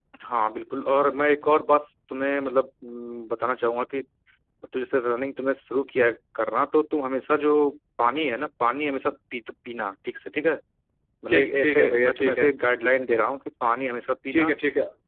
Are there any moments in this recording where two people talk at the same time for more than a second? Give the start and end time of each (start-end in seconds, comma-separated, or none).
11.3-12.5